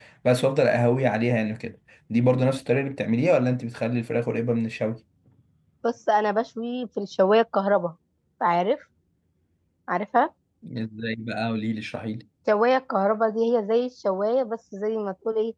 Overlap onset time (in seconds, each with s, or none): none